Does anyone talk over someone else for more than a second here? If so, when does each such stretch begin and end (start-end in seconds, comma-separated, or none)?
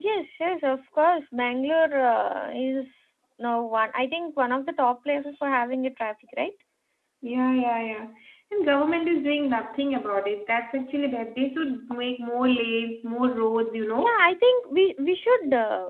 none